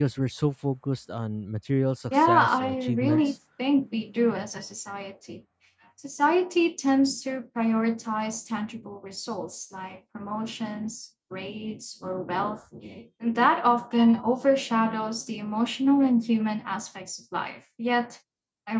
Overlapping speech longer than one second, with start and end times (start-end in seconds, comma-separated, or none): 2.1-3.3